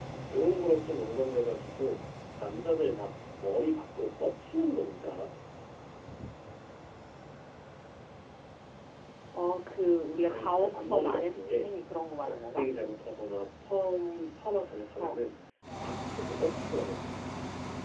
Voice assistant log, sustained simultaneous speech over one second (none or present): present